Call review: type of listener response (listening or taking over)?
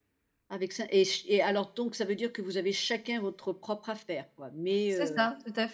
taking over